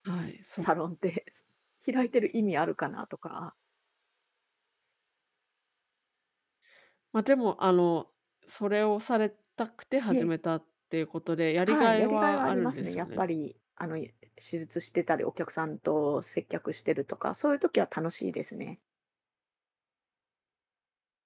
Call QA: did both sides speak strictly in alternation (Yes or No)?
No